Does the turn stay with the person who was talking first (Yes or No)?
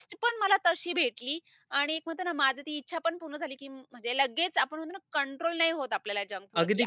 No